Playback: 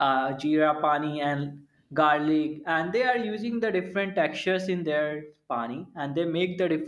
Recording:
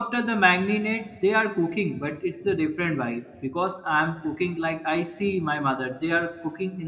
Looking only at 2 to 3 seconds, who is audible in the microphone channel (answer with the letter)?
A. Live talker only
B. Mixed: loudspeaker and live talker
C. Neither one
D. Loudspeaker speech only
A